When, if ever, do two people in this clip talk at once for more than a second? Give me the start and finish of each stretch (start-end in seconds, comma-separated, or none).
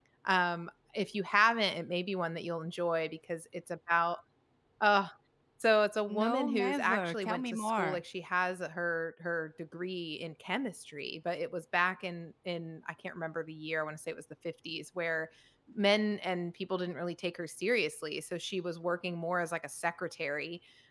6.1-8.0